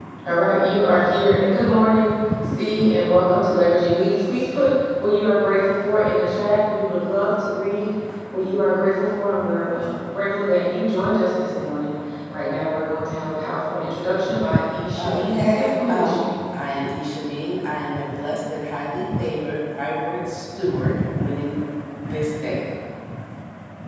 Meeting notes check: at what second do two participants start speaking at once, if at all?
15.0 s

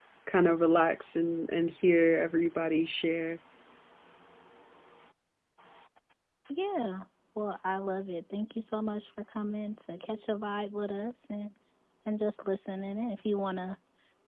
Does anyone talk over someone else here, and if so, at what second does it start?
none

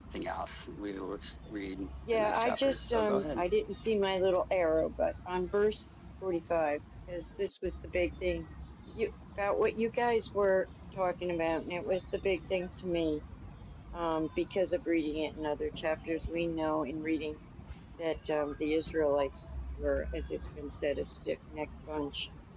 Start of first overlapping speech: 2.0 s

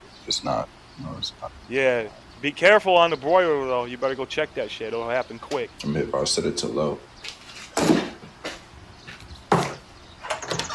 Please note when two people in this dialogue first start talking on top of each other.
none

